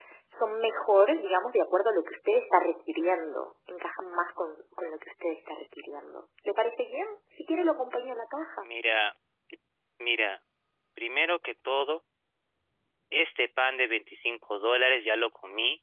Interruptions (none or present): none